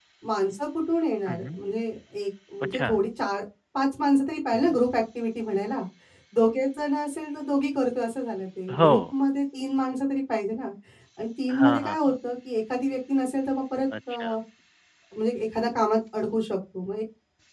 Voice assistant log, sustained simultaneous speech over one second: none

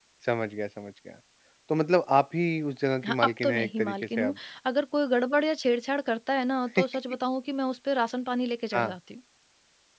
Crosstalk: present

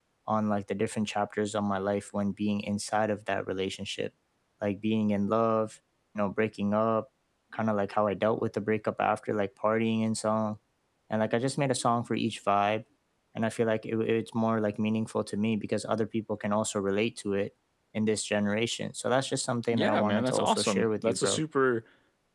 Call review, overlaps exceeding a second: present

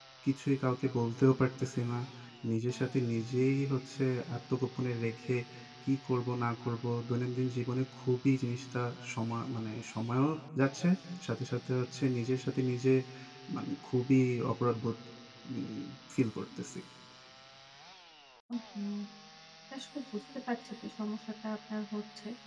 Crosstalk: none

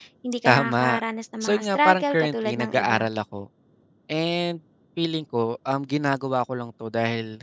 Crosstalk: present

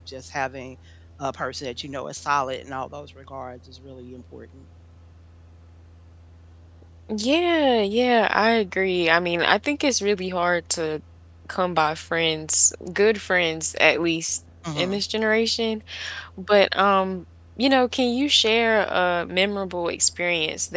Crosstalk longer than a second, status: none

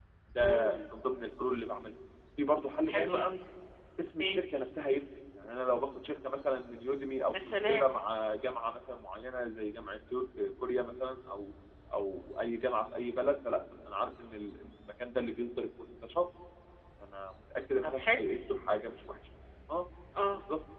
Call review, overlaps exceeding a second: none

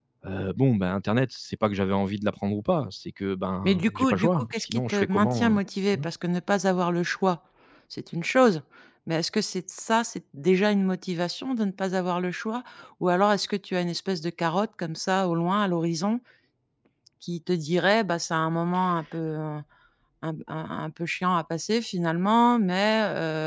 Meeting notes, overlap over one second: present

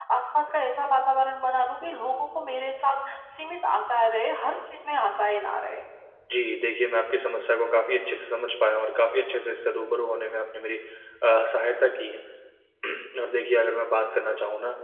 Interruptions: none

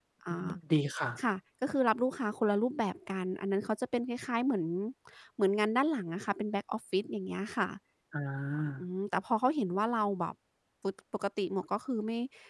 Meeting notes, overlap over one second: none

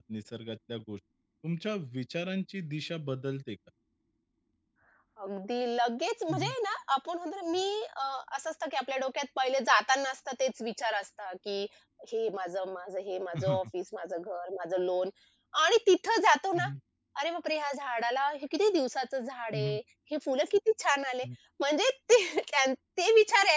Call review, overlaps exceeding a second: none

